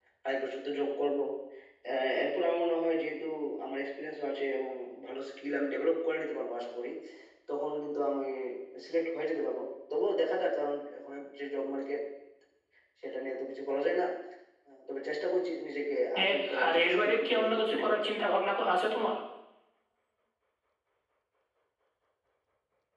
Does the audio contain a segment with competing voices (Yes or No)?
Yes